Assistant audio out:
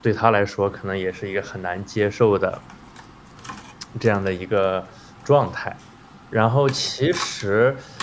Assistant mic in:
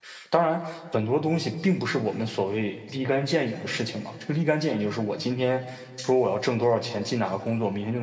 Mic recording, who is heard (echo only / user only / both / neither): user only